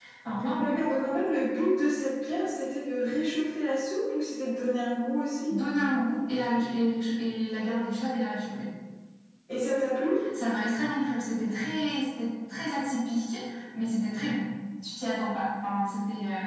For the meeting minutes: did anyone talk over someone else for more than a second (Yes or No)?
No